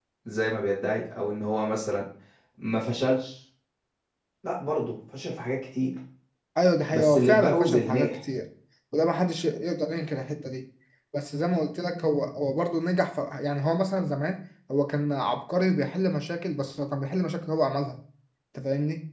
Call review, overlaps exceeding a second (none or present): present